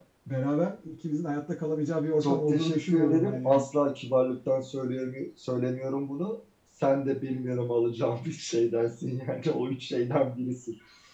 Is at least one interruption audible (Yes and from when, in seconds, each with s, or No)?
Yes, from 2.2 s